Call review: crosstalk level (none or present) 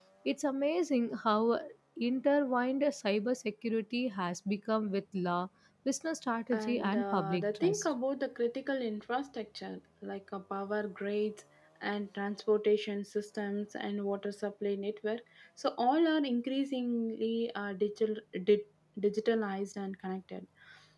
present